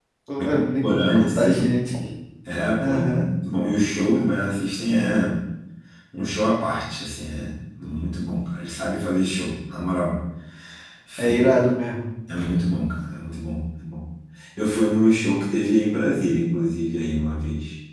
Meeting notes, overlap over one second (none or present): present